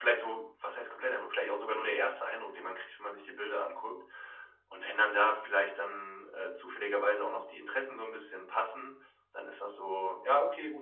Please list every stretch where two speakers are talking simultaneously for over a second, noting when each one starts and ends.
none

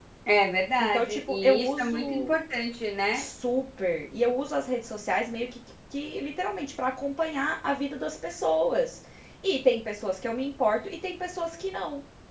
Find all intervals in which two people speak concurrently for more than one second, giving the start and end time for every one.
0.8-2.4

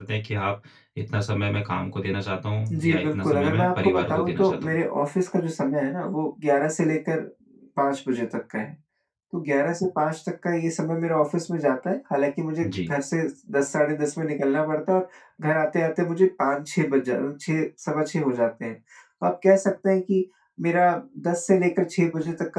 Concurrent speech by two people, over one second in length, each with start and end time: 2.7-4.8

